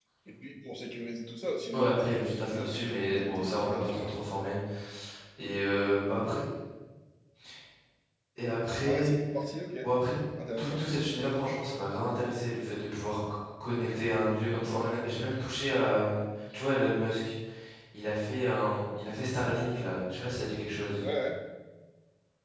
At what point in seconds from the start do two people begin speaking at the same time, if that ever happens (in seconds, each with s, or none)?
1.7 s